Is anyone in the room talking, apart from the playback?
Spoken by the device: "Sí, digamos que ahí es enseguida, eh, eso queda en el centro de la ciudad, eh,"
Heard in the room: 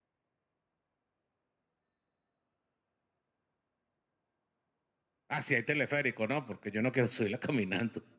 Yes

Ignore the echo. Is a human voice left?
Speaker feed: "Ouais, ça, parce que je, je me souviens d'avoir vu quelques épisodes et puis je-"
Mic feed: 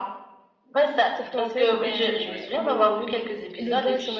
Yes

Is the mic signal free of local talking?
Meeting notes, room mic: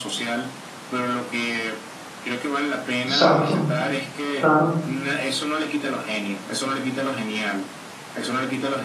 No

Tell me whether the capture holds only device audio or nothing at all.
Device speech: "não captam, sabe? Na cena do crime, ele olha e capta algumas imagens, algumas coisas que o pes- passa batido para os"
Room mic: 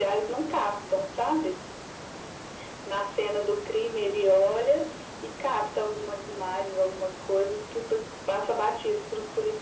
Yes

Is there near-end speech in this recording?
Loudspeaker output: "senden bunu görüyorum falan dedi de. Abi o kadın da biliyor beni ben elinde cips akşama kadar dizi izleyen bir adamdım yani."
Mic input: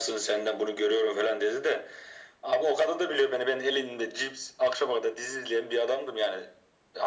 No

